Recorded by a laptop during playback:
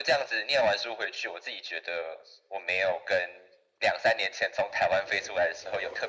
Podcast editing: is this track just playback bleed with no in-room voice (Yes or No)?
Yes